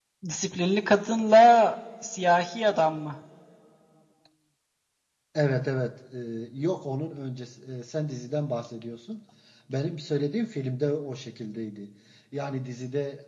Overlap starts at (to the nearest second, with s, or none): none